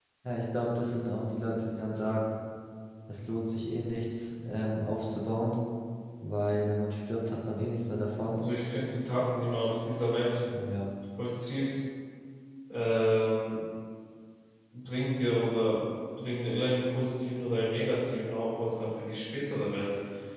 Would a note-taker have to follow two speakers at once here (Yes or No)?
No